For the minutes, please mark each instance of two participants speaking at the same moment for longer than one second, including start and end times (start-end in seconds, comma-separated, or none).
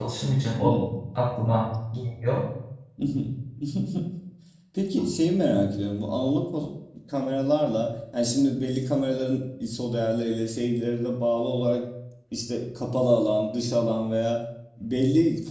none